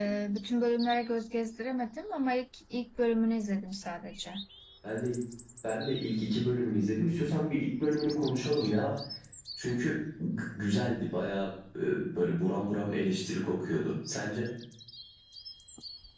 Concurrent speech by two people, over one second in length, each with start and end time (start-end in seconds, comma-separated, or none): none